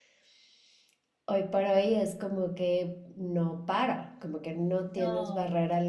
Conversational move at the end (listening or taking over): listening